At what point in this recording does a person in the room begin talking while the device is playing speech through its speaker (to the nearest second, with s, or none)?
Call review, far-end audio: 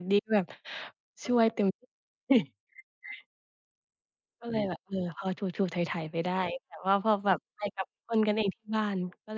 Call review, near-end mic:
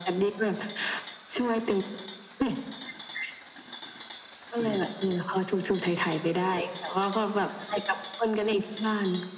none